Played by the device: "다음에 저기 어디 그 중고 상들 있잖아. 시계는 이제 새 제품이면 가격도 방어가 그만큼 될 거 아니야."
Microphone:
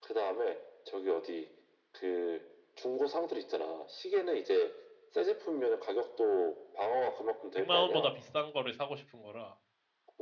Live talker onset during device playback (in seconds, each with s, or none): 7.5 s